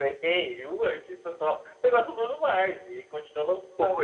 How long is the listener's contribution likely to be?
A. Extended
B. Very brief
B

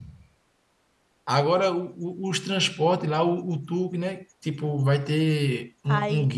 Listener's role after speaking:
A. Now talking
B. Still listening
A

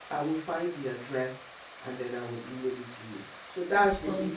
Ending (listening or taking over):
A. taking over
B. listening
B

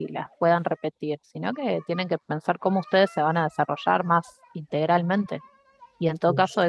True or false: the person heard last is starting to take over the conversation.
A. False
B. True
A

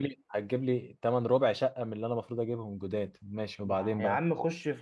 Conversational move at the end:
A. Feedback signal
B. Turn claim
B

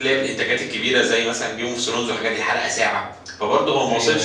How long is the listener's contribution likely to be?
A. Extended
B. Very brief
B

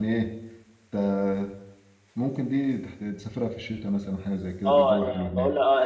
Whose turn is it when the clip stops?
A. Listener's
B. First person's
A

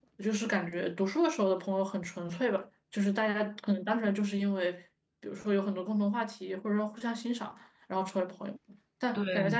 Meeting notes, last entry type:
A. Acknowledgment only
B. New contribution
A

